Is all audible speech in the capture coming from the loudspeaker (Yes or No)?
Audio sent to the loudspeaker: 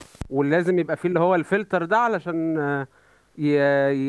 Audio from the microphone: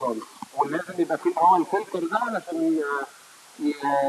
Yes